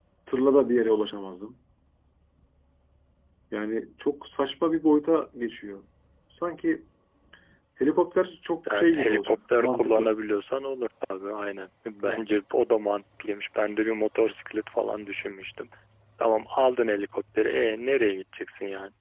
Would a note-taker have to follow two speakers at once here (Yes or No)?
Yes